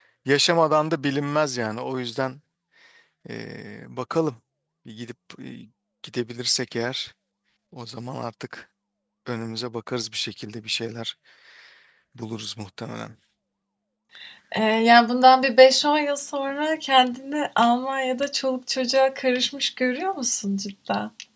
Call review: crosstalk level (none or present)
none